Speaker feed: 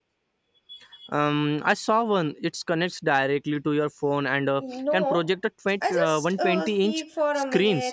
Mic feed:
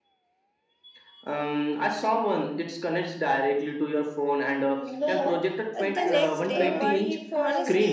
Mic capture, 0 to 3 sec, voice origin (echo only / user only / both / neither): echo only